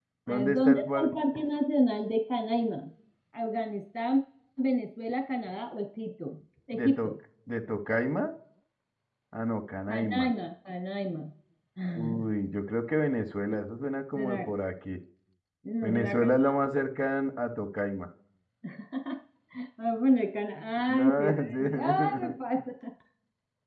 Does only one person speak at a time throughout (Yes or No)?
No